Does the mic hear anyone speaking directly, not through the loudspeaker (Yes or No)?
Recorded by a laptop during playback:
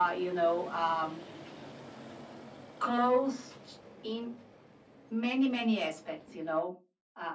No